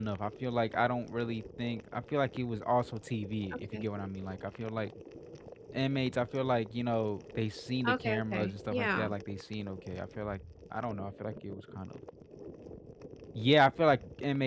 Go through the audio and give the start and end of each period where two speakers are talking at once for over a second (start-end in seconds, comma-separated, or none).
7.8-9.1